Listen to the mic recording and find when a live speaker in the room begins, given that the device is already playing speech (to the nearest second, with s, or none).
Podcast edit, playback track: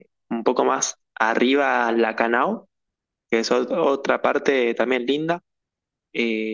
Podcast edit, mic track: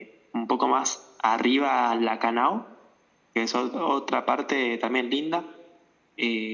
none